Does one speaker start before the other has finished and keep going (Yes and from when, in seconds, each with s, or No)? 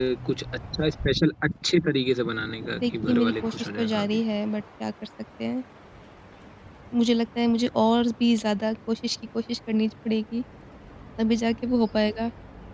Yes, from 2.8 s